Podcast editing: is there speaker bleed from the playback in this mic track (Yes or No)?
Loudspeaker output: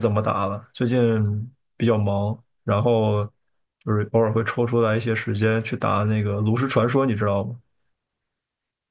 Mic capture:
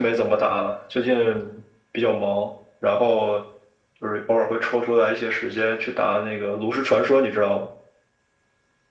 Yes